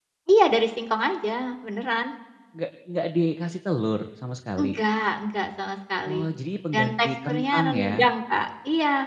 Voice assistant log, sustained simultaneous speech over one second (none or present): present